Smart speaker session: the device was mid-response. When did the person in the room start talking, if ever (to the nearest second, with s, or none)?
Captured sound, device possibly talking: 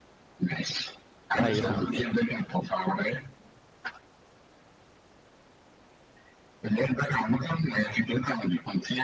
1 s